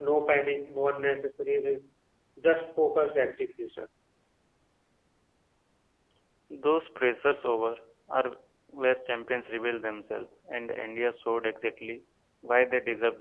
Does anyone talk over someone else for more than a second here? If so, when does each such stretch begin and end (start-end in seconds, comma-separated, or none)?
none